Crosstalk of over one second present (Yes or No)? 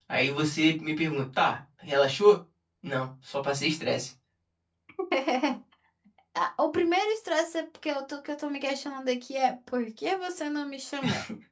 No